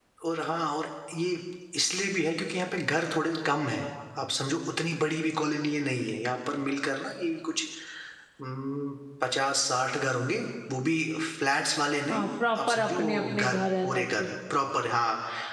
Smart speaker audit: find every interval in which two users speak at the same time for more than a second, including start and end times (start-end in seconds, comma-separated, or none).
12.7-14.3